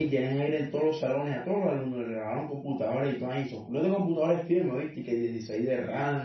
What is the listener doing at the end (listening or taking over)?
listening